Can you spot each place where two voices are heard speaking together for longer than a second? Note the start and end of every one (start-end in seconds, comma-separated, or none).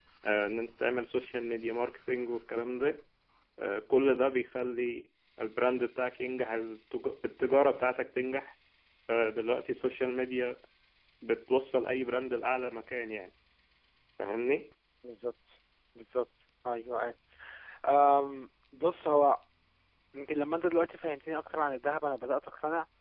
none